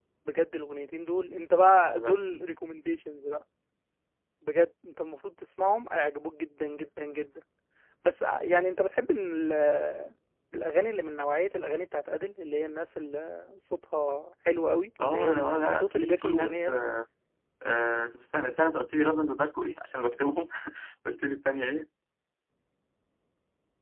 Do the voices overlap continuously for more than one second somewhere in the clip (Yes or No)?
Yes